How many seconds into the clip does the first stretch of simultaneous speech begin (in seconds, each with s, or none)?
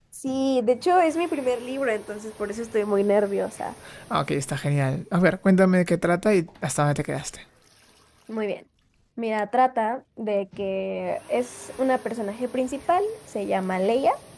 none